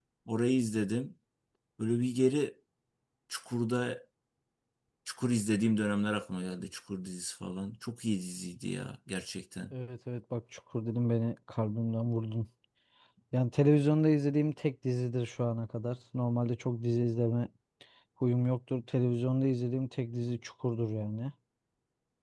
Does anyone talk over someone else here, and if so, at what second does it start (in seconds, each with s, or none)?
none